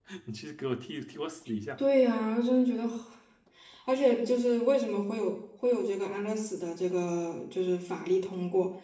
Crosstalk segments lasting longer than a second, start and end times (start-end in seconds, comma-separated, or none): none